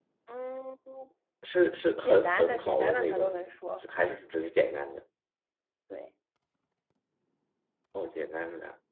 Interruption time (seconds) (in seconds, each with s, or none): 2.0 s